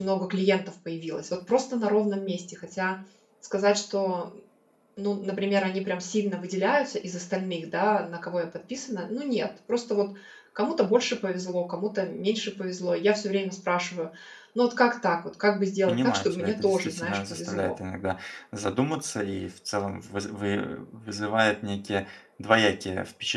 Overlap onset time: 15.9 s

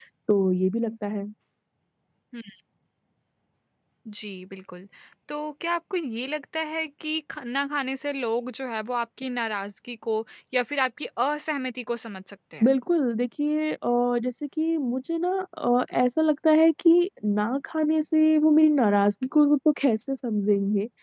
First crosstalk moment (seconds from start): none

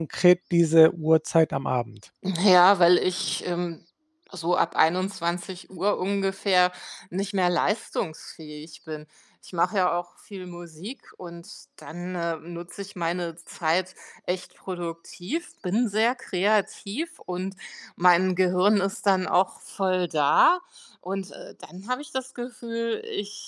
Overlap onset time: none

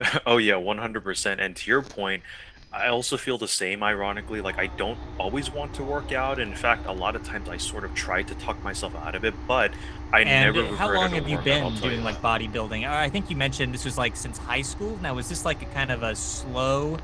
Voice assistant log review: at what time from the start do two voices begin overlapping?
10.2 s

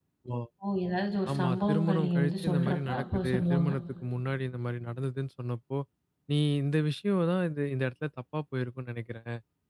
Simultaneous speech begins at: 1.3 s

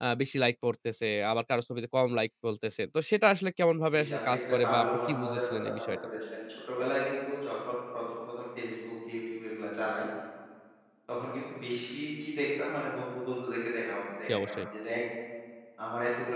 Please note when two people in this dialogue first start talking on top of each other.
3.9 s

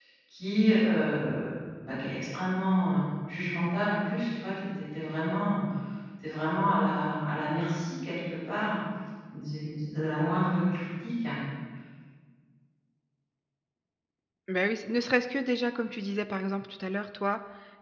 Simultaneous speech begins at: none

